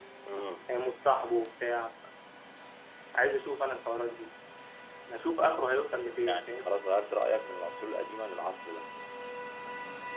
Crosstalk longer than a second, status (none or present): none